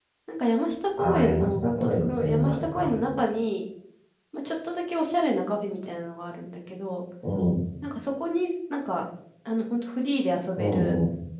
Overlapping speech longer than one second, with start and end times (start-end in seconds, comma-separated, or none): 1.0-2.9